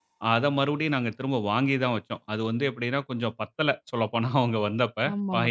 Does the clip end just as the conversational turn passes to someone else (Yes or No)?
Yes